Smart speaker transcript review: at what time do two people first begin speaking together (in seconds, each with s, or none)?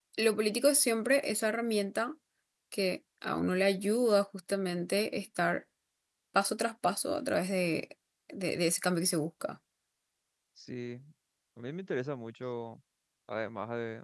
none